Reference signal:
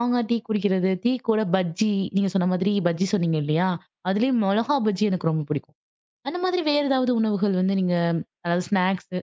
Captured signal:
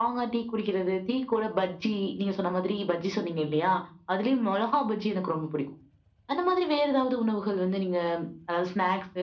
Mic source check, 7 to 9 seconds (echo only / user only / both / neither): echo only